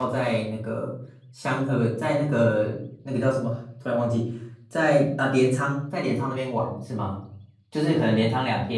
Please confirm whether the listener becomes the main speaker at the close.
No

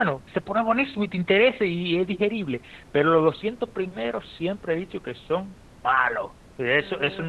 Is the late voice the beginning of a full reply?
No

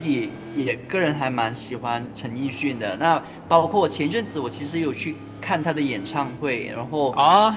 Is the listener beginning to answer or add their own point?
Yes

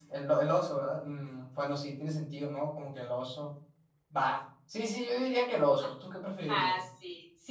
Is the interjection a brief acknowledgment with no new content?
No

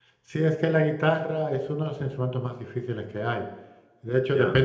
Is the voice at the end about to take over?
No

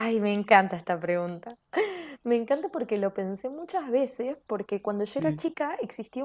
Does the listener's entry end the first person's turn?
No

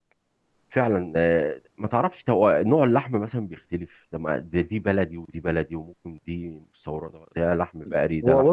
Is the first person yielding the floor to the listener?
Yes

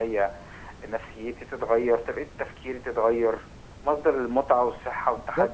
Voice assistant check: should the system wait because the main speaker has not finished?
Yes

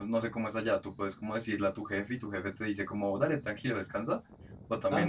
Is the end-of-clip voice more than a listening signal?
Yes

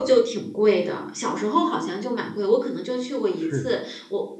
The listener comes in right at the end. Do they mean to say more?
No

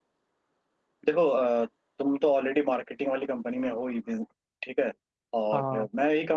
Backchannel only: Yes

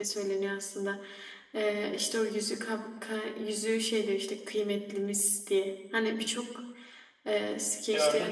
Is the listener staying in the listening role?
No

